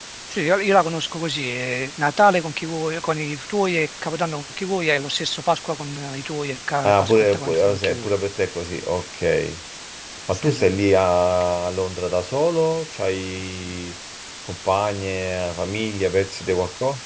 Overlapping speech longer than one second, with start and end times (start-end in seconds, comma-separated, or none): 6.8-8.1